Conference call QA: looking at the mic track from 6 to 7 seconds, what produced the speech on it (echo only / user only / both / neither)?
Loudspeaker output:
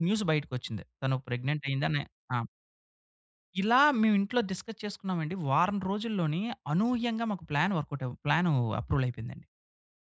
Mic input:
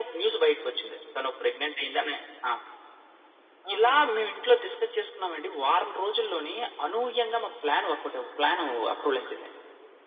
echo only